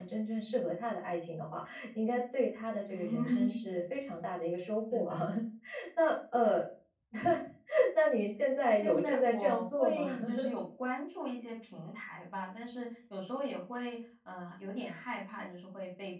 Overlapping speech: Yes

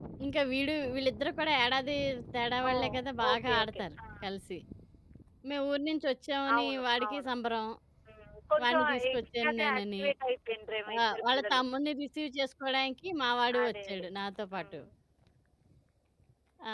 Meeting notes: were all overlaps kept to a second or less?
No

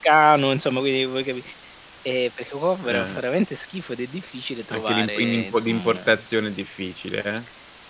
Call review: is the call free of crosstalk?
No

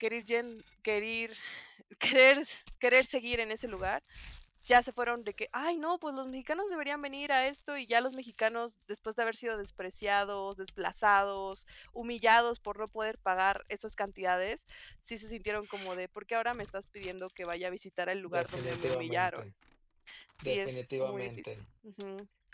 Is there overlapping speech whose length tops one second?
Yes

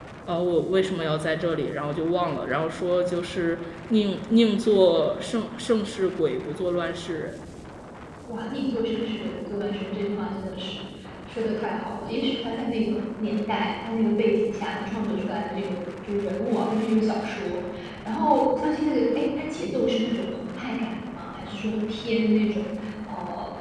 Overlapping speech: No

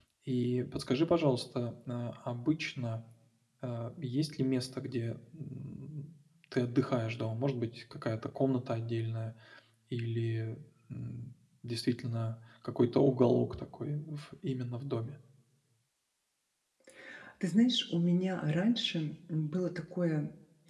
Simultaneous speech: No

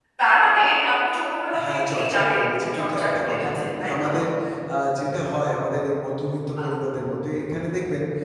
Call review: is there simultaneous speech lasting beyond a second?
Yes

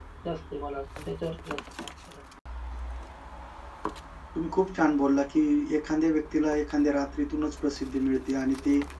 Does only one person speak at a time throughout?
Yes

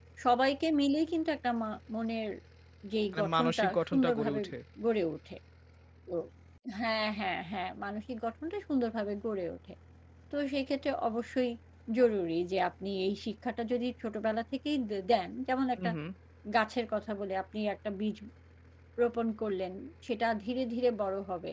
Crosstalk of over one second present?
Yes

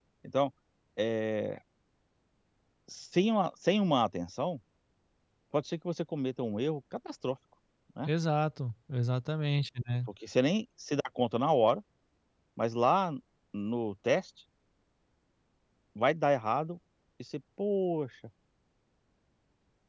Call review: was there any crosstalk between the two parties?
No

